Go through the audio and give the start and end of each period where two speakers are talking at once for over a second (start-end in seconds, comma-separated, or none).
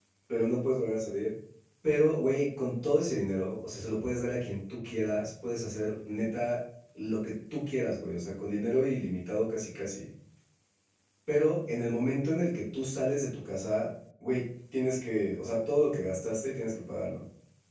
none